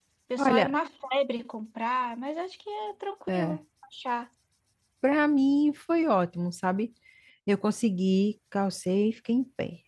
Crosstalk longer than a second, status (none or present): none